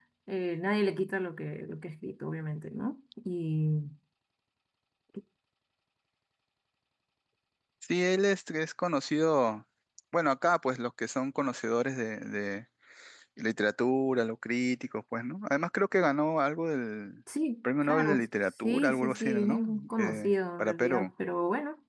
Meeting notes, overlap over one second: present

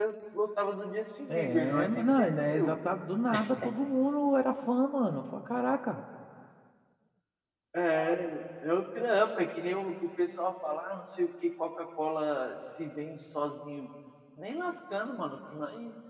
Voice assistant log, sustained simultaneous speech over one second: present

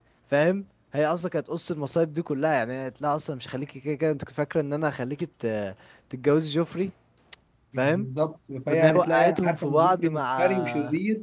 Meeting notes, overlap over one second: present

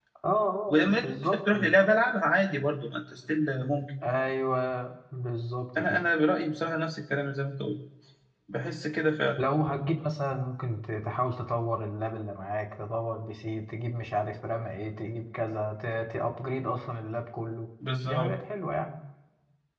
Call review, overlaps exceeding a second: present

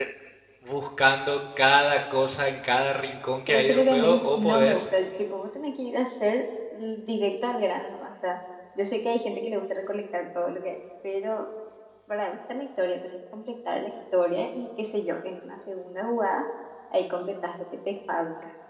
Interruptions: present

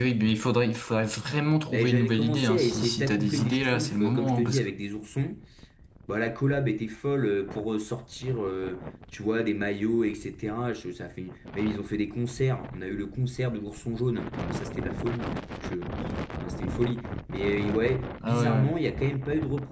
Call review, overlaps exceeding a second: present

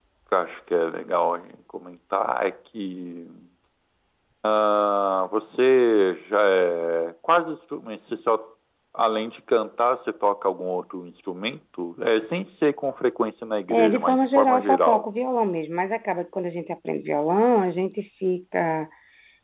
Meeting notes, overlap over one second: present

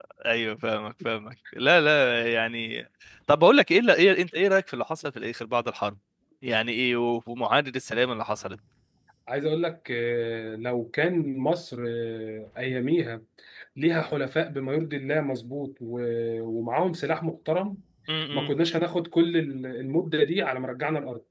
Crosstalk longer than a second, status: none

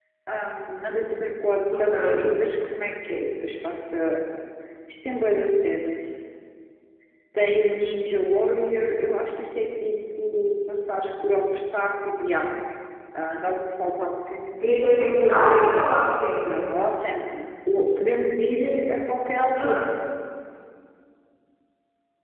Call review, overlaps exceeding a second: none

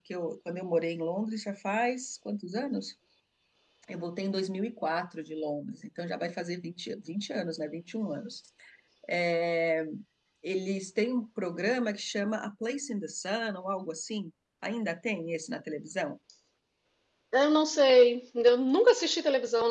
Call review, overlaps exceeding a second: none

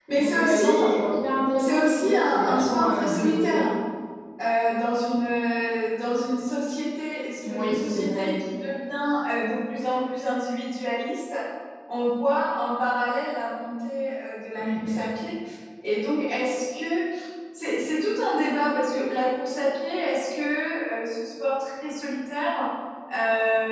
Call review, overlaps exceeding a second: present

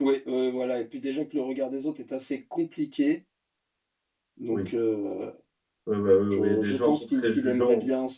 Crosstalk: present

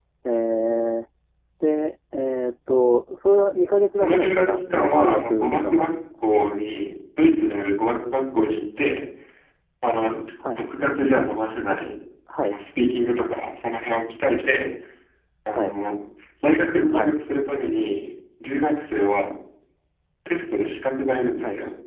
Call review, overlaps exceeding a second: present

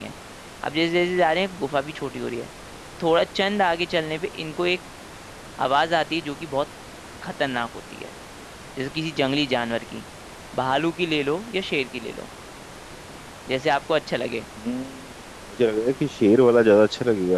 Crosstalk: none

